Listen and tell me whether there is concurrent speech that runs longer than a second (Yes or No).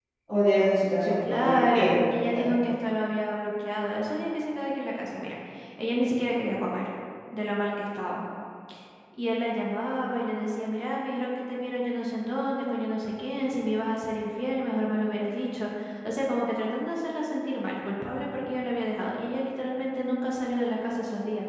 Yes